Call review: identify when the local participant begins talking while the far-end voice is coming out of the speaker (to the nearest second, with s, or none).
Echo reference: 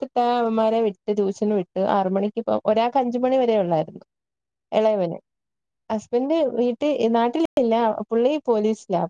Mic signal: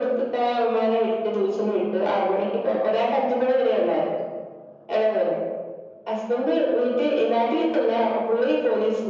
none